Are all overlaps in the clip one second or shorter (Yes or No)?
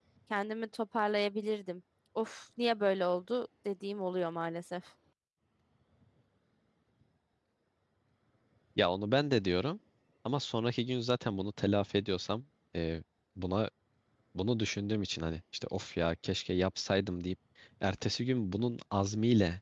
Yes